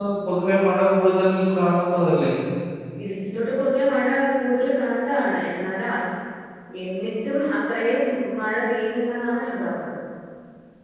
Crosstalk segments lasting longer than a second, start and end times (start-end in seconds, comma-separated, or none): none